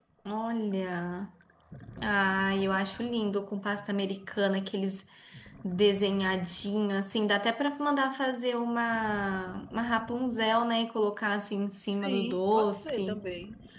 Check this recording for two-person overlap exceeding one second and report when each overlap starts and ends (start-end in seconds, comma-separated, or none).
12.0-13.2